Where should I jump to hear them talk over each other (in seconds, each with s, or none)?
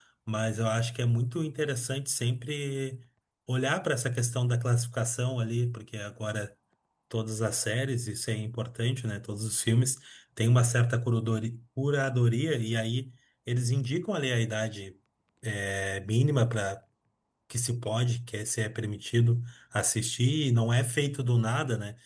none